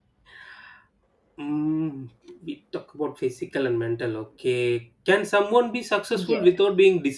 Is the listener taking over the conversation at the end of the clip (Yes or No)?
No